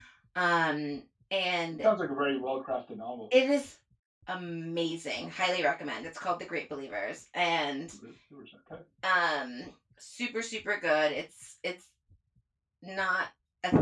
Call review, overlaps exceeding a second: none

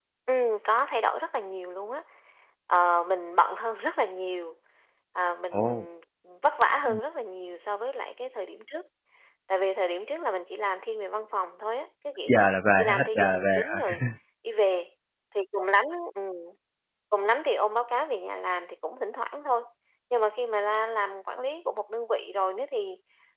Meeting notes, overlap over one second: present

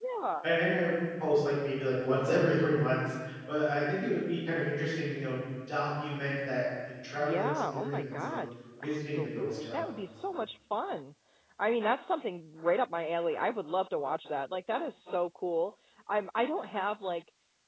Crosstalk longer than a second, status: present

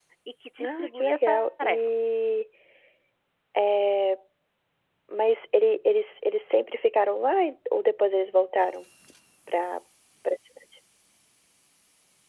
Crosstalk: present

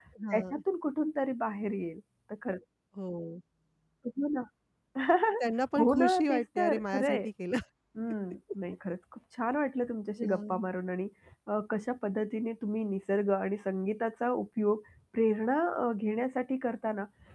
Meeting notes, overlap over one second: present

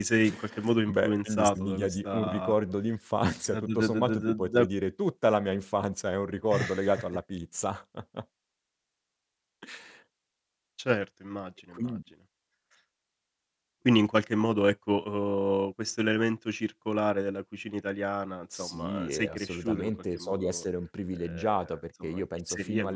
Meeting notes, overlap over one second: present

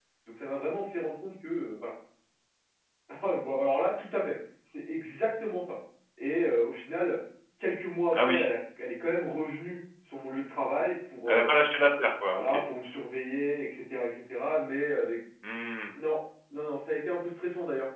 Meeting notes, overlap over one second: none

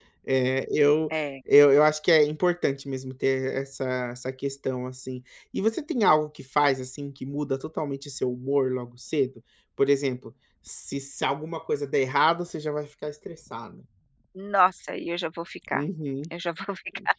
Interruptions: none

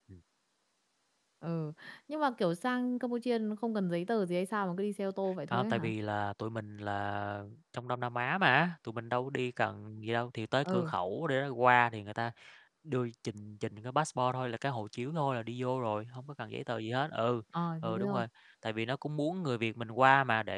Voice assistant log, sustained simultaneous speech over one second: none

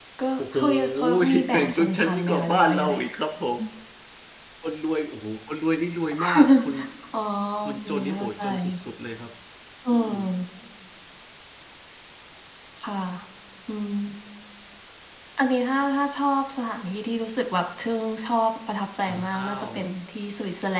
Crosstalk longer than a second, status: present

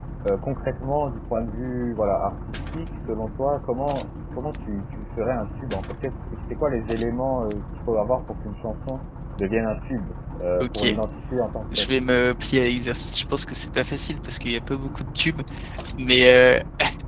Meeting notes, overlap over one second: none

